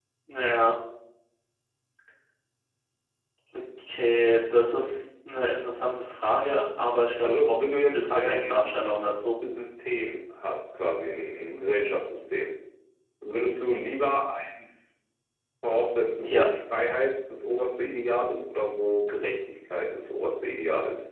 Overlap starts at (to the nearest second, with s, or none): 7 s